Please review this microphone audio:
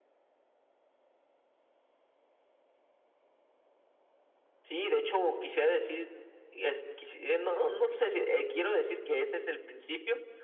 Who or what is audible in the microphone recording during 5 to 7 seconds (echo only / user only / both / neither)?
echo only